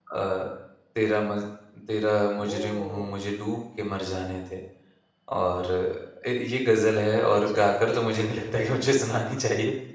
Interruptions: present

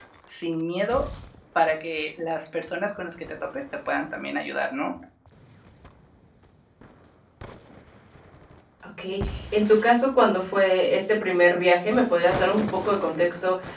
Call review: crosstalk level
none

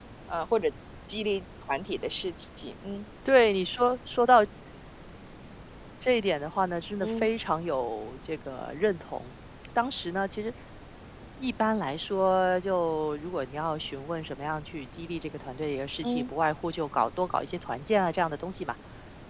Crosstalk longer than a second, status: none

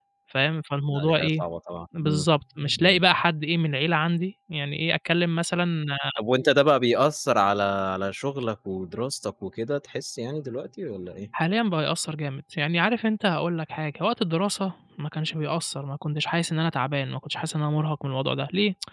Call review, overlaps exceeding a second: none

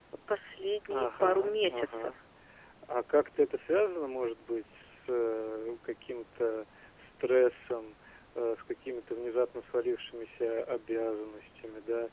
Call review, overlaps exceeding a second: present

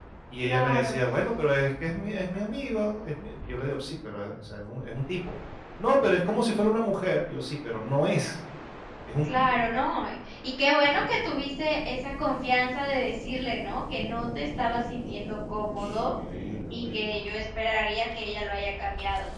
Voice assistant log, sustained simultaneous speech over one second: none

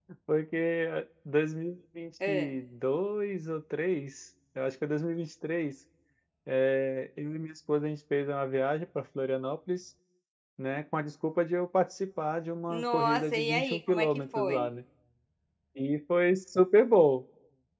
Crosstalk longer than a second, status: present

